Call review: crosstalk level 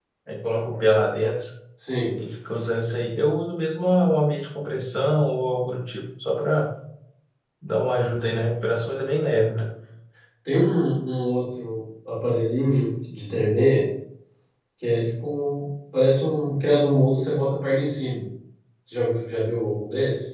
none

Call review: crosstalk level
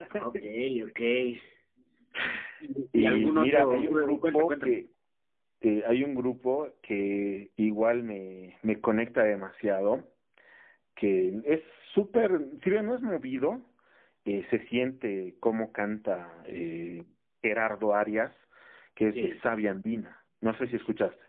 present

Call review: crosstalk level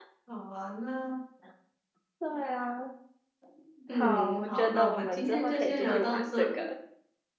present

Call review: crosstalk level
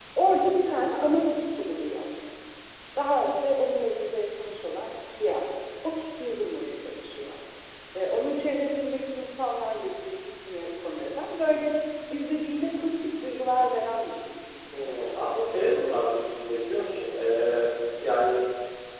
none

